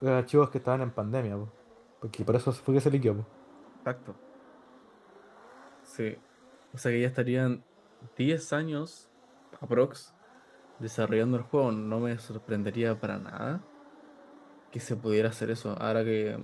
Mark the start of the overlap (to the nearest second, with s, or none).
none